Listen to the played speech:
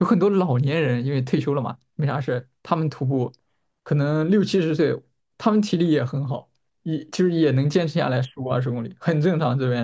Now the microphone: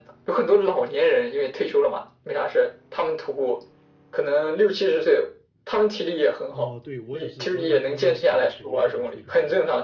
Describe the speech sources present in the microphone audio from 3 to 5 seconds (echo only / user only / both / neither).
echo only